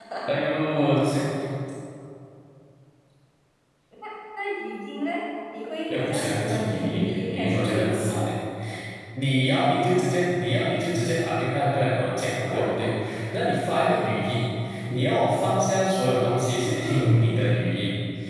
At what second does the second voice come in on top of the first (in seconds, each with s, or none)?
6.0 s